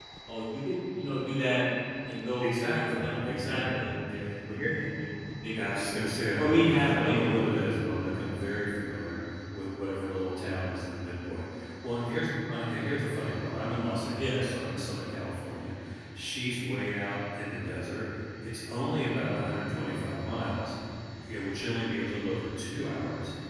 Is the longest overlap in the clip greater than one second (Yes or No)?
Yes